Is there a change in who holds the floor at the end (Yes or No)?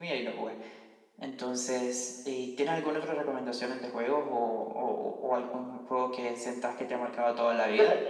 Yes